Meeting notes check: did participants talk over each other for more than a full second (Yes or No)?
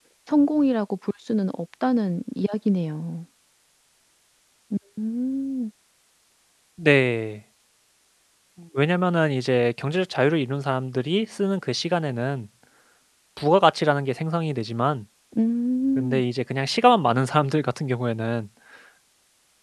No